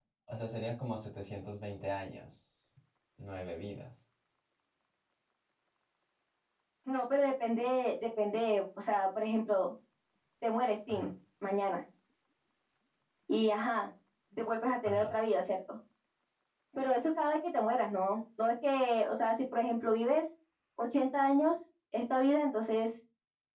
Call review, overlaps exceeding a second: none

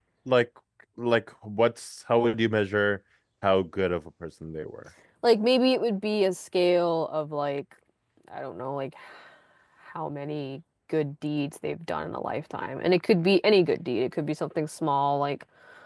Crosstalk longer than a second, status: none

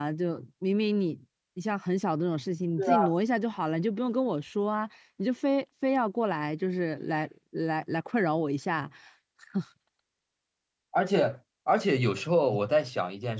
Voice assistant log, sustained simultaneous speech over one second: none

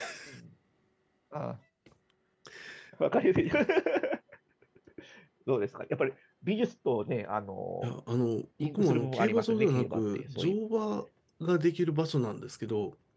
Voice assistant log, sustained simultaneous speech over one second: present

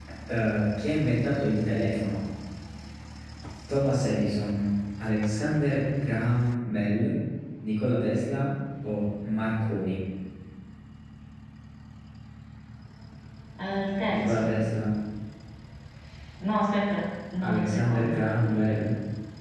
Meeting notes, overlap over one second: present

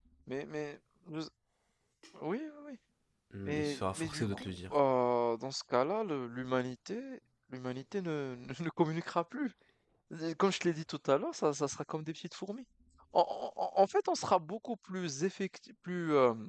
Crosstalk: present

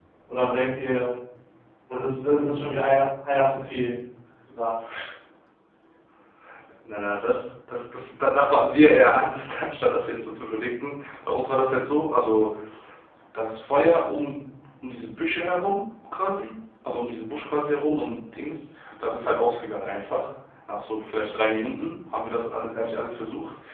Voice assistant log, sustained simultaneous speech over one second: none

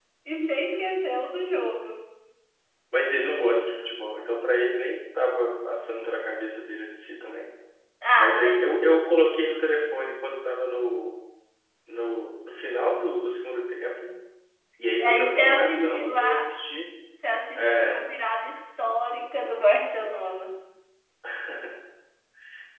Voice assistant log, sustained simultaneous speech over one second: present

